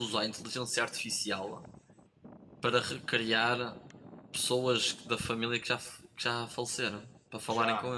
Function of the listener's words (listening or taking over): taking over